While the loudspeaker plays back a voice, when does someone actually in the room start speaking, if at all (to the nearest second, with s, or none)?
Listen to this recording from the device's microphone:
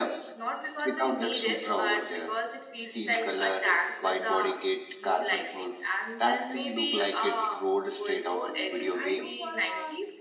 8 s